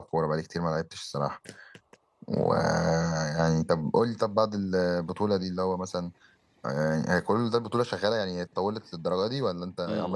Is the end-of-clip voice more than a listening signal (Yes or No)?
Yes